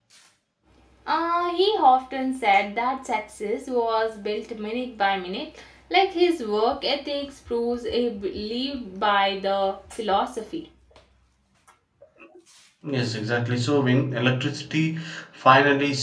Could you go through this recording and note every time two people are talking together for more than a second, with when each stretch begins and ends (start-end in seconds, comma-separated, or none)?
none